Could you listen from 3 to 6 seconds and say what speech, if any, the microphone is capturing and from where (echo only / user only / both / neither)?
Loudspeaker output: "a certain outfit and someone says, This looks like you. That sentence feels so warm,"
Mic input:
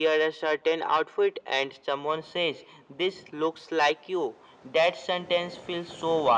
echo only